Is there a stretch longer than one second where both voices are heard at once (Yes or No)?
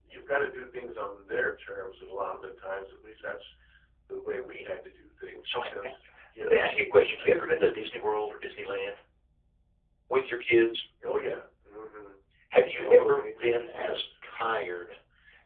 Yes